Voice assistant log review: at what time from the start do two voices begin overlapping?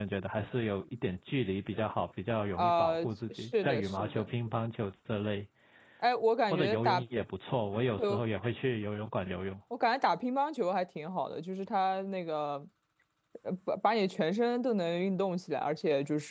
2.6 s

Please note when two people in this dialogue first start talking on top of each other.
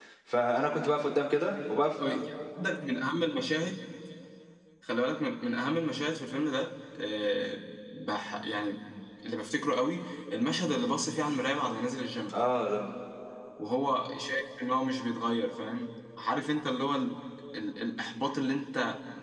none

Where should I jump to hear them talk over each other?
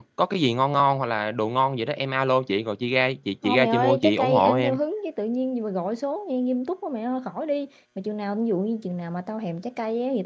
3.4 s

